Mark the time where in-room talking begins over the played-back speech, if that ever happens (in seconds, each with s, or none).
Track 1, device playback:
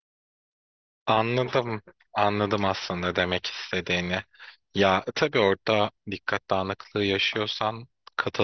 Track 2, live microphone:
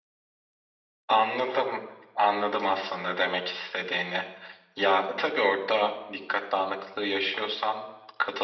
none